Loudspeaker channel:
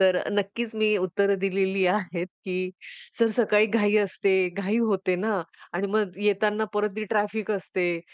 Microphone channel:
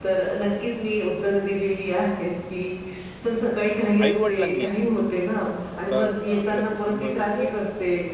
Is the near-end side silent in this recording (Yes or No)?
No